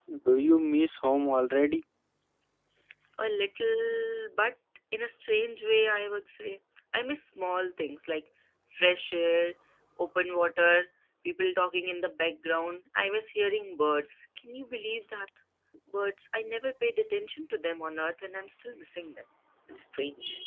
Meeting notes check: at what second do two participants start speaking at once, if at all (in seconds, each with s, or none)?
none